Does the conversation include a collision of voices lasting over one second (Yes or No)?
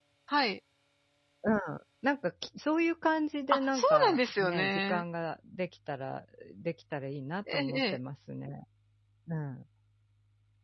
Yes